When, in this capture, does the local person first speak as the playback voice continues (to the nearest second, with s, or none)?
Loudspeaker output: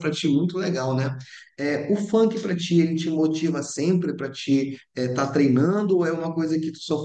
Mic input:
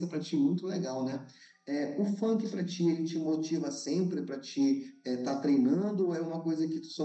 none